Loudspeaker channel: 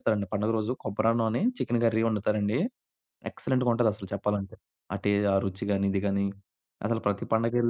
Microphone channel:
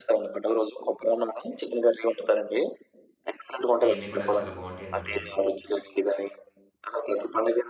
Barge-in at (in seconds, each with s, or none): 3.8 s